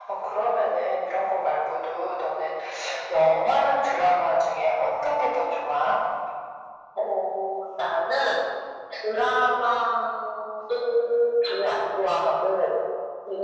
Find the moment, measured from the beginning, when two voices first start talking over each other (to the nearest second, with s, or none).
none